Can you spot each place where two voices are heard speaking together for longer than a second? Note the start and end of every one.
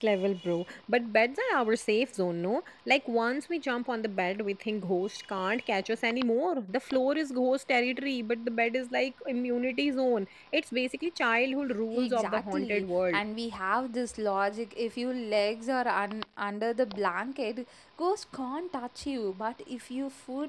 11.9-13.2

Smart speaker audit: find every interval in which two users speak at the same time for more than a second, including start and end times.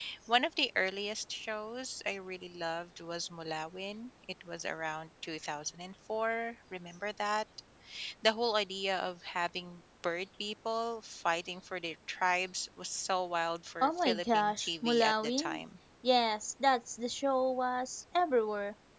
13.8-15.6

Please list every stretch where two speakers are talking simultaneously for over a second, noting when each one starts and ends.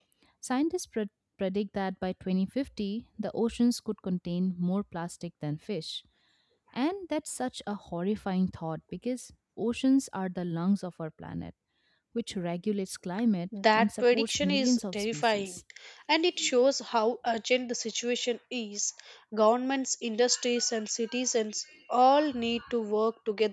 13.8-15.5

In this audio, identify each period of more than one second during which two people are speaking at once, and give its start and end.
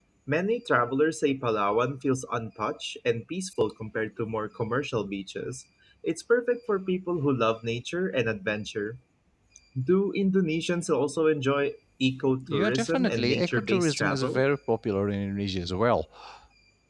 12.5-14.4

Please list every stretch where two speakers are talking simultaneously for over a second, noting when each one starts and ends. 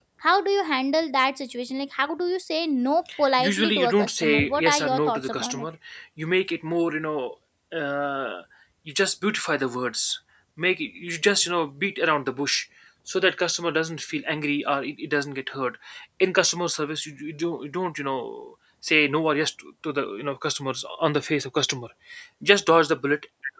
3.4-5.7

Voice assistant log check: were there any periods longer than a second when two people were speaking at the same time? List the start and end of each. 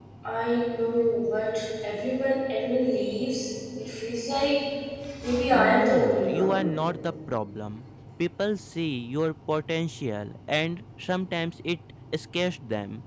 5.5-6.8

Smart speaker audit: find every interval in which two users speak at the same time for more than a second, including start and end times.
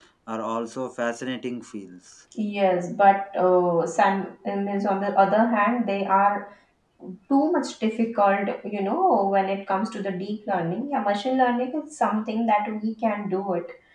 none

